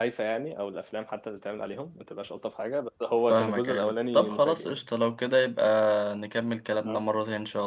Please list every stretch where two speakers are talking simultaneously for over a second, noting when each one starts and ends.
3.2-4.9

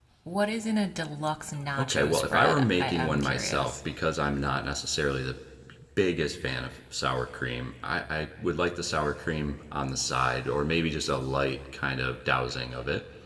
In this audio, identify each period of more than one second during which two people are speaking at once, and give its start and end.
1.8-3.8

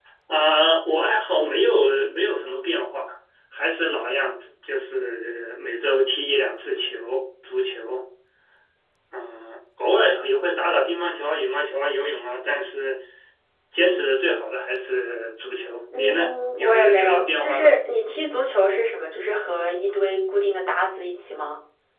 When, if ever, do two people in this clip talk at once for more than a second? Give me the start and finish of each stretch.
16.0-17.8

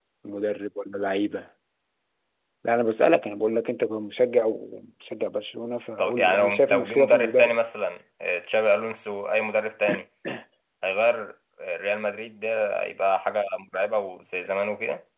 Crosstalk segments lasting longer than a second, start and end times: 6.0-7.6

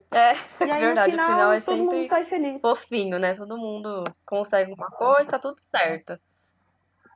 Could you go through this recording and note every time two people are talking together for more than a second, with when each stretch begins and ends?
0.8-2.1

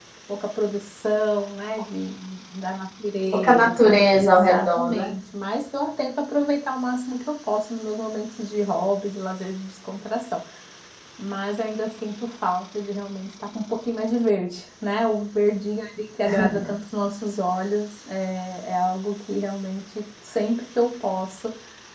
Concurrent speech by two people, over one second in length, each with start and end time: 3.4-5.1

